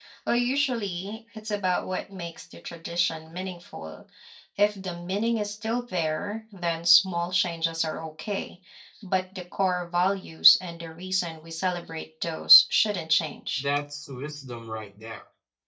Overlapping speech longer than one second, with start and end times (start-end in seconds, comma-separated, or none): none